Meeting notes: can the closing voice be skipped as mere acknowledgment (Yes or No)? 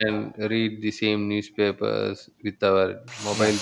No